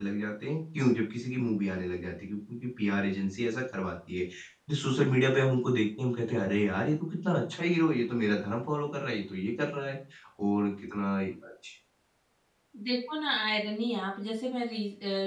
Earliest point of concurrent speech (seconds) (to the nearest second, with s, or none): none